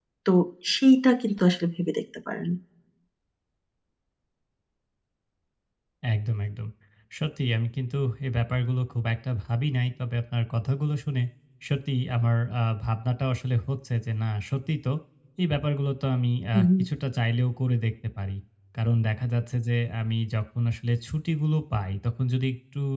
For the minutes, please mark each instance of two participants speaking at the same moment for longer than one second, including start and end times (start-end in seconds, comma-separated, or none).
none